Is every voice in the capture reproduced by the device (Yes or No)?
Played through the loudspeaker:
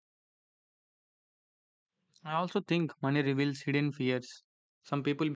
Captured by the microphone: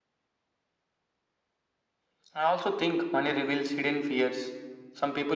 Yes